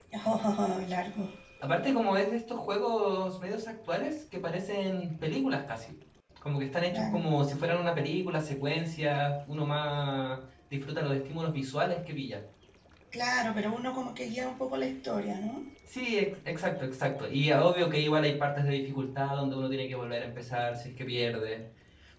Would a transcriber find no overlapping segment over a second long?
Yes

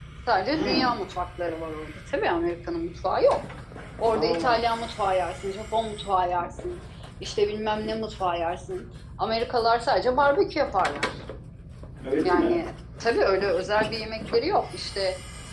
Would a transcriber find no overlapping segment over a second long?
Yes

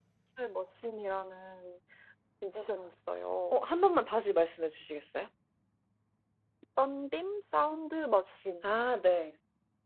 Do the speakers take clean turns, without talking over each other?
Yes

